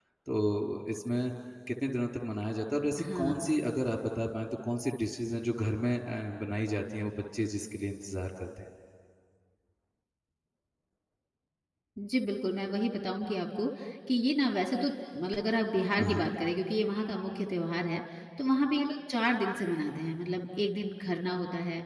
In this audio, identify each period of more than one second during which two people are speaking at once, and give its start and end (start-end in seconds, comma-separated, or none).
none